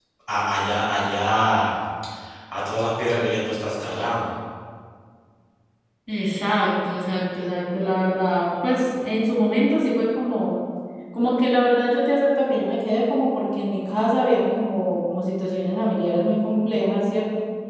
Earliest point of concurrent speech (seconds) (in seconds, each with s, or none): none